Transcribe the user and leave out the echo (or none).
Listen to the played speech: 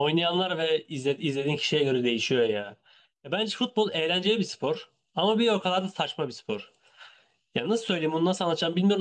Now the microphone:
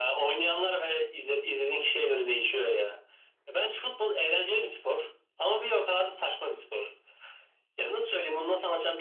none